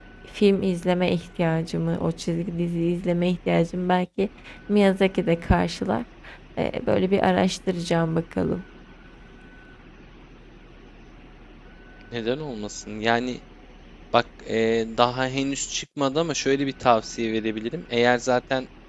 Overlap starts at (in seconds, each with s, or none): none